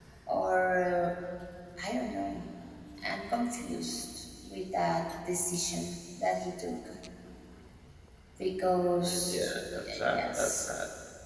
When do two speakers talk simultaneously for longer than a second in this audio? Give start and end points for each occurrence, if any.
9.0-10.7

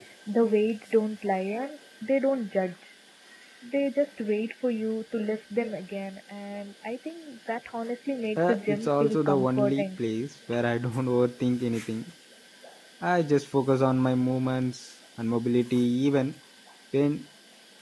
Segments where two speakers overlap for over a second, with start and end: 8.4-9.8

